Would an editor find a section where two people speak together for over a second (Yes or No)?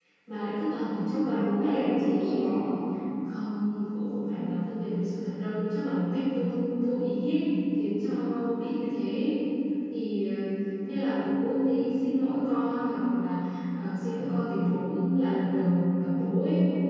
Yes